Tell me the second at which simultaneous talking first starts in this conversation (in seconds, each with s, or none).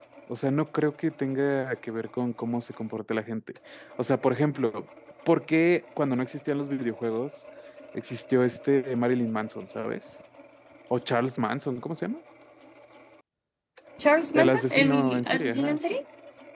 14.3 s